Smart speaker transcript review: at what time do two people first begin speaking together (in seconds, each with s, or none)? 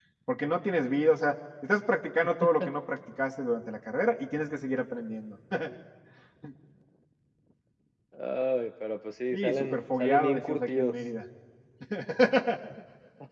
9.3 s